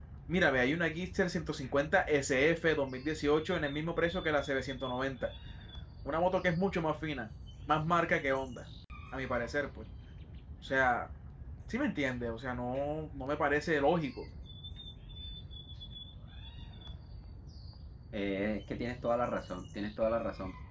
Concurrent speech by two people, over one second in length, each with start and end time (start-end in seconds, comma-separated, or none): none